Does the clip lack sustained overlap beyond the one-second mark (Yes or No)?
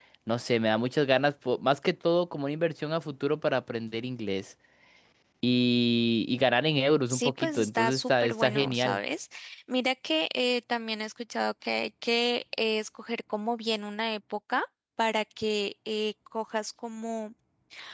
No